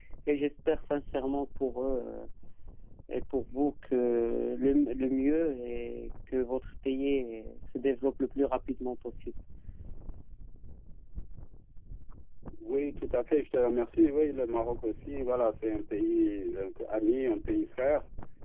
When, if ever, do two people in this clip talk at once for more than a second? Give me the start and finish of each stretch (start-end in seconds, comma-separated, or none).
none